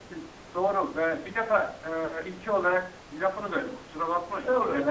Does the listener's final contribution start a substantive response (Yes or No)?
No